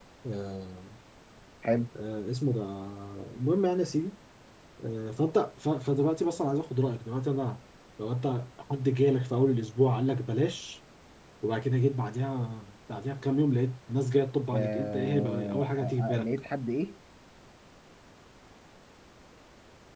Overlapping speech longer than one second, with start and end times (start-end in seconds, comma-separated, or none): 14.5-16.3